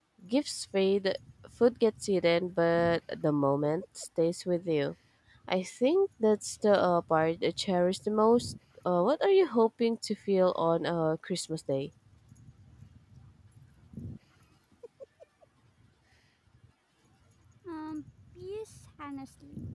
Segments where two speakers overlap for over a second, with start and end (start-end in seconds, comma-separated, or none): none